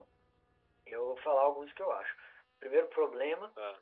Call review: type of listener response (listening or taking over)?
listening